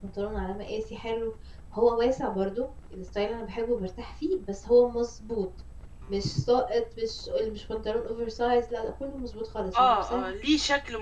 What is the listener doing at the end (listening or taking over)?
taking over